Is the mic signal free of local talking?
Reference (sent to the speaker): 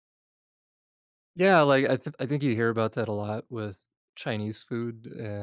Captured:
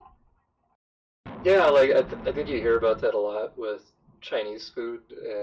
Yes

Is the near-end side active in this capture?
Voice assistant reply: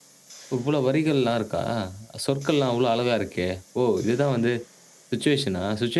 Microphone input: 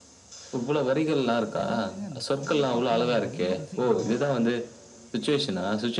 Yes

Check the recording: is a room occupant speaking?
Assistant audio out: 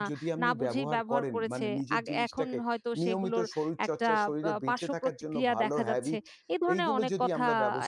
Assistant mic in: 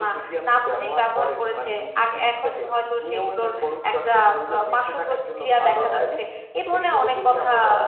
No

